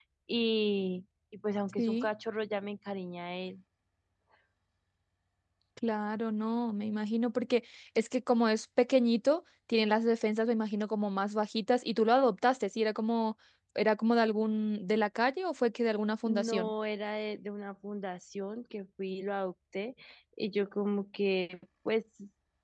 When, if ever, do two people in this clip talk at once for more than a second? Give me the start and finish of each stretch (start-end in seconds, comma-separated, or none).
none